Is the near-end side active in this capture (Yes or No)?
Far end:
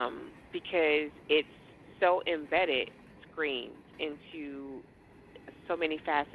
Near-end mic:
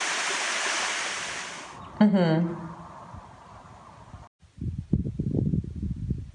Yes